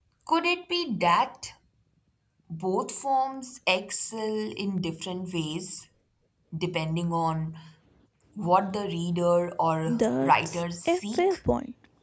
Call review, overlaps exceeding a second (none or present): present